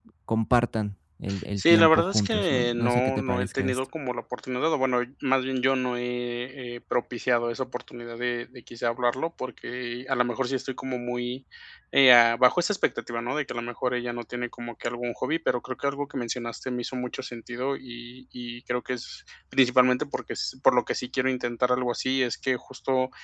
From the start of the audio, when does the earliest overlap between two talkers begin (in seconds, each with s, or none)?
1.6 s